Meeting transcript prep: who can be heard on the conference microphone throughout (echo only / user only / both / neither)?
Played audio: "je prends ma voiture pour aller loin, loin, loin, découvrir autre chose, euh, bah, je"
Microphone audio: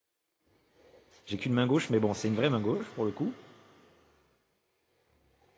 user only